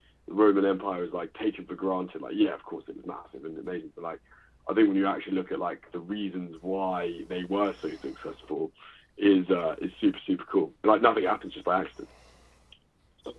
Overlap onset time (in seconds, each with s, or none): none